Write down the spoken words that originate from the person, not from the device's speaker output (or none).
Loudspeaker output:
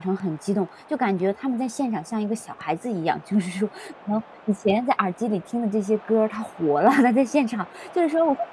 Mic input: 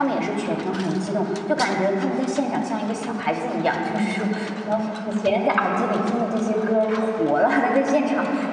none